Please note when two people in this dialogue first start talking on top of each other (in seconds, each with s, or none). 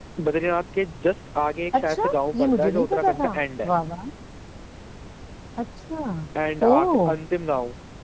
1.7 s